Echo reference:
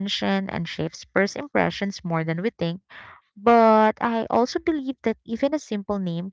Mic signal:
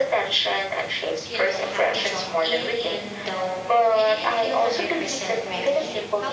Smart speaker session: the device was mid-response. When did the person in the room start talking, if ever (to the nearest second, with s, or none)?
1 s